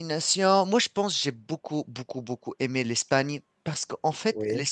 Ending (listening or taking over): listening